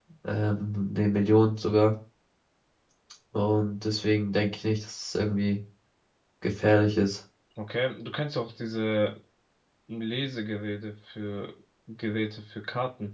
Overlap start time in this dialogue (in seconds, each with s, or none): none